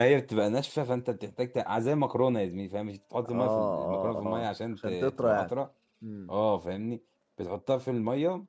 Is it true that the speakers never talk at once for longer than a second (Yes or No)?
No